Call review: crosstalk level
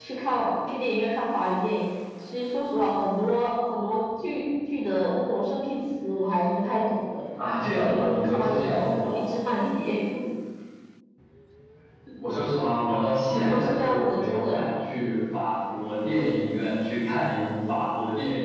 present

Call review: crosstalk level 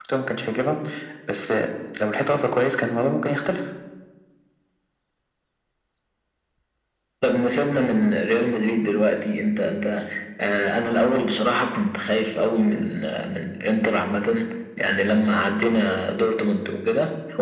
none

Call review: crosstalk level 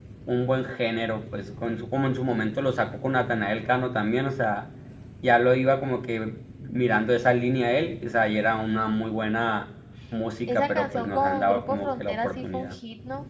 present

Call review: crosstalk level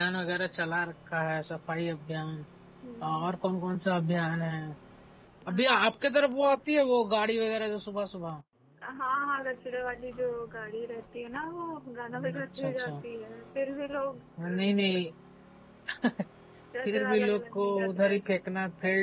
present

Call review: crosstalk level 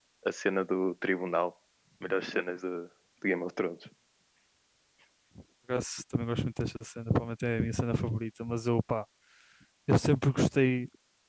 none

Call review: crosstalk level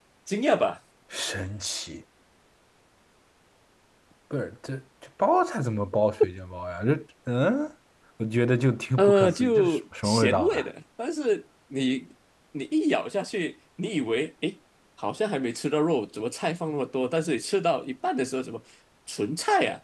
present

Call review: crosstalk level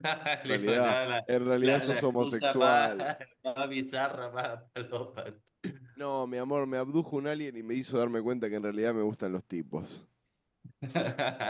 present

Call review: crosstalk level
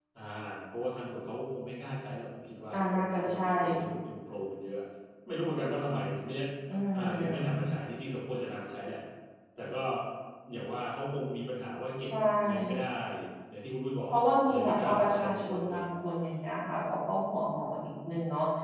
present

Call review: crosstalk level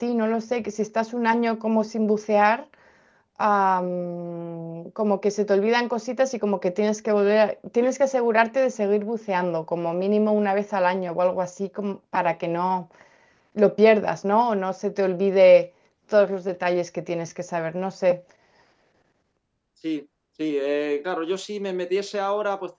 none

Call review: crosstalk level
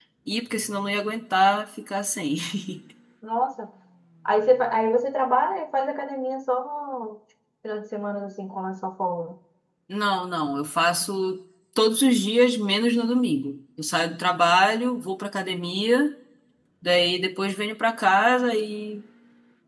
none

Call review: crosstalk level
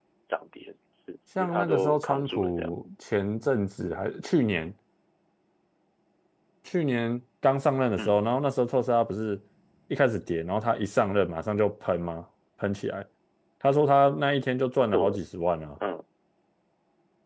present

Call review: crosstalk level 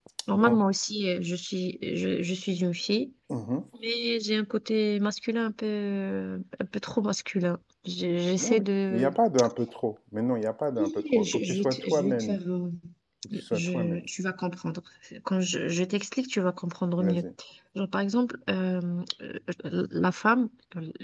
present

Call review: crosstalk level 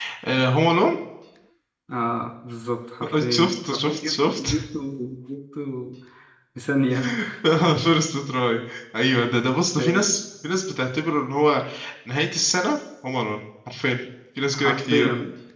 present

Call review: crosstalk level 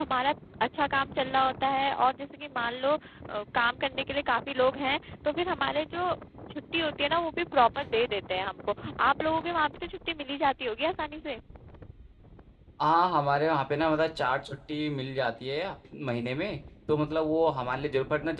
none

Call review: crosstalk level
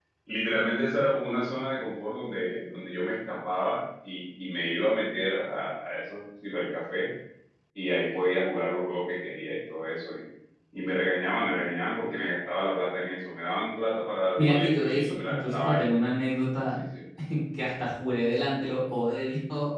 present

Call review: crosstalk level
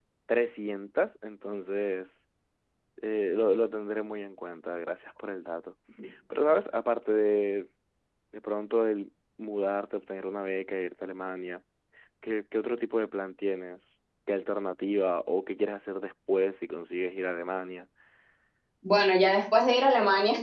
none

